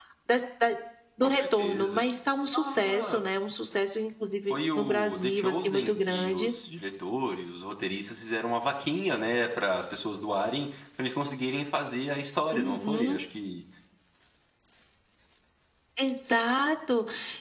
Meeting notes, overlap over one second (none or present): present